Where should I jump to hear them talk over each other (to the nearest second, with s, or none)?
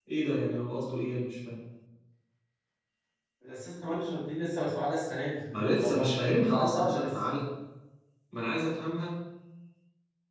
6 s